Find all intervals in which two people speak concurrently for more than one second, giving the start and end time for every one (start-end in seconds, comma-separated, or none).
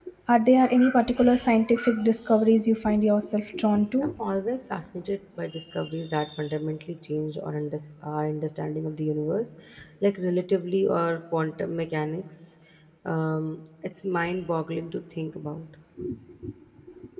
none